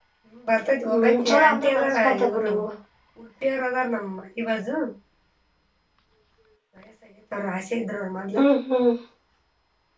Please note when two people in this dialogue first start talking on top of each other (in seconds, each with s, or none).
0.9 s